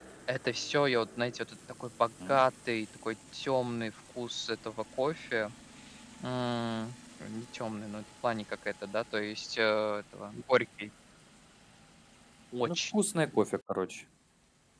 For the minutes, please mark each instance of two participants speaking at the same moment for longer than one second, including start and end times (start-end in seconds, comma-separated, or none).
none